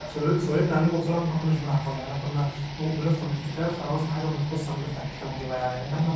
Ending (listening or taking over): taking over